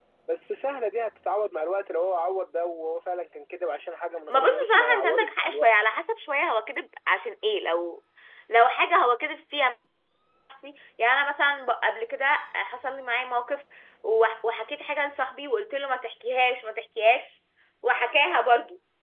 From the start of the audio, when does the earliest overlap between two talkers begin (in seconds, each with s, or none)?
4.3 s